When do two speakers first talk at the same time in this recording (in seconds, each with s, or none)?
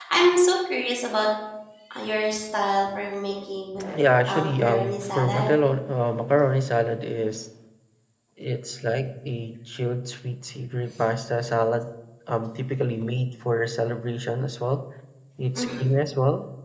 4.3 s